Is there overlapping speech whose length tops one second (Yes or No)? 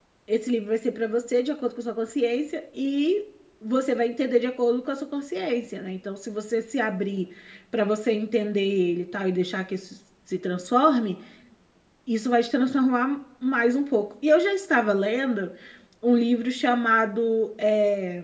No